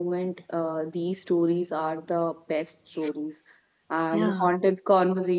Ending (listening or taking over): listening